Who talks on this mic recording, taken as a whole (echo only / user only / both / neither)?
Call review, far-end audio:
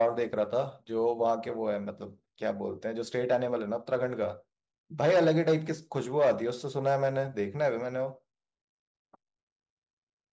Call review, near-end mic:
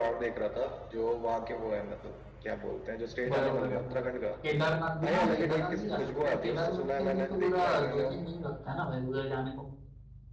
both